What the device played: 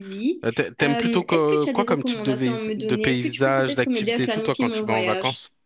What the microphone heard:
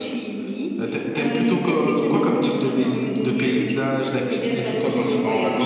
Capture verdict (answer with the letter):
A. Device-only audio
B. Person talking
A